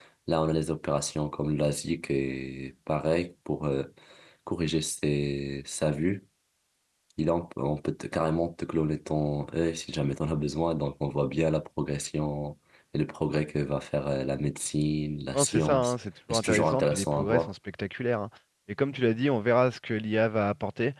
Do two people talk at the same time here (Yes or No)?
Yes